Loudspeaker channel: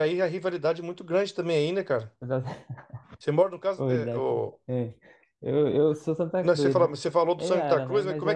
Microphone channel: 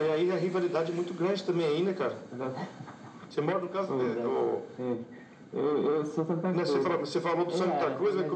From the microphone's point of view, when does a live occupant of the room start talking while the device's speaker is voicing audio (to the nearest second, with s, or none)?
none